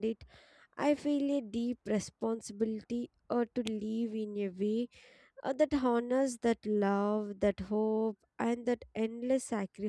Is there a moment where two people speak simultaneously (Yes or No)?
No